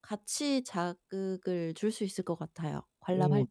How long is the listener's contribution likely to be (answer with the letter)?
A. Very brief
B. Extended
B